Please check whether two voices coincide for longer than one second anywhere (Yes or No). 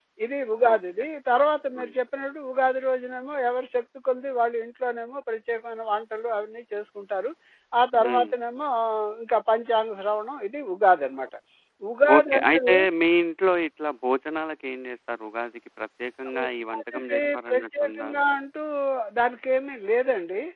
Yes